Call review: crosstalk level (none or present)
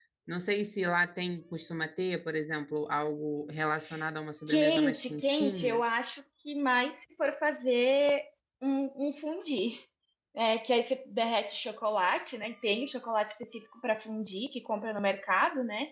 present